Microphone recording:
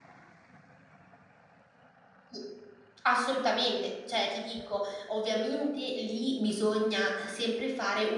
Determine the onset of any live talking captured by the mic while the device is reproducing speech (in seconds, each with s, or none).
2.3 s